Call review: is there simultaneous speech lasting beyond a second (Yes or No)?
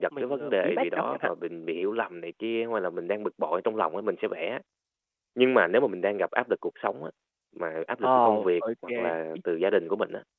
Yes